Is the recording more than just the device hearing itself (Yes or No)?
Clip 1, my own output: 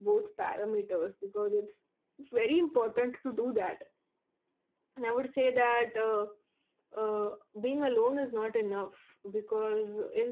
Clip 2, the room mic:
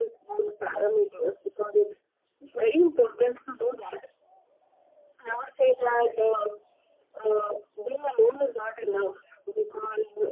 No